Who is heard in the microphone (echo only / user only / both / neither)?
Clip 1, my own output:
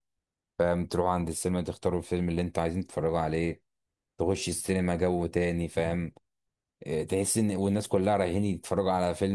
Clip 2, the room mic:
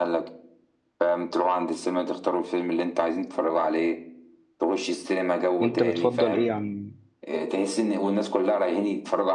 both